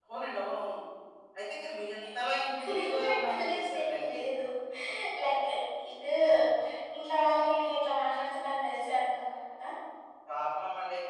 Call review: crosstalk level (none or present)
present